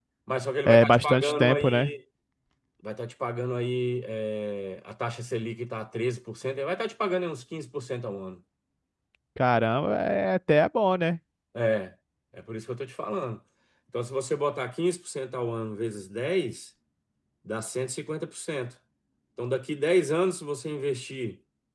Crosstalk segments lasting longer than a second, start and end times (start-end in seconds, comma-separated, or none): 0.7-1.9